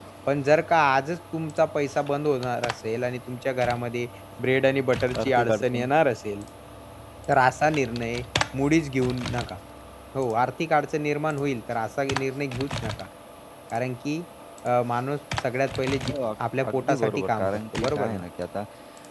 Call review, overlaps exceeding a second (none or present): present